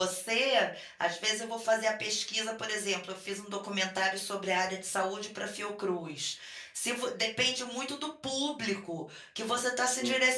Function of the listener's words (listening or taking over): listening